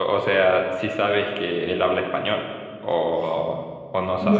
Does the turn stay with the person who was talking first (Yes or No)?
No